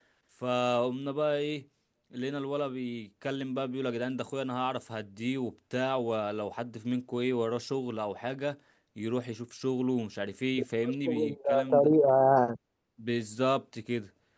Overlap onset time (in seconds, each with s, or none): 10.5 s